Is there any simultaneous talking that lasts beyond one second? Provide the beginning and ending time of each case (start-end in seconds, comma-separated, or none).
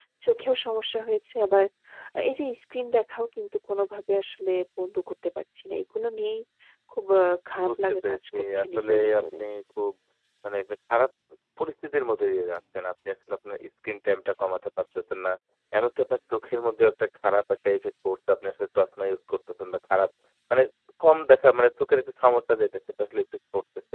7.7-9.4